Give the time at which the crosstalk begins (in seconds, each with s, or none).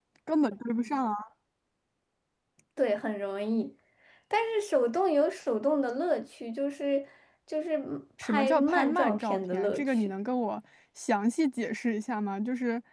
8.2 s